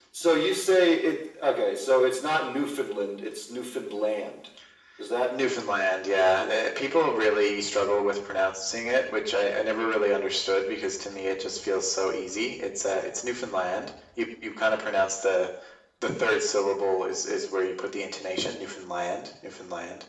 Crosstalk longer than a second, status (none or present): none